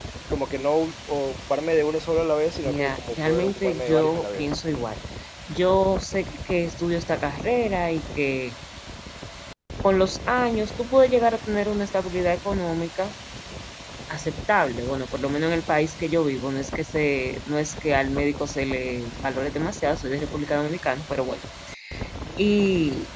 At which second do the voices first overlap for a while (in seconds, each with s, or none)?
2.6 s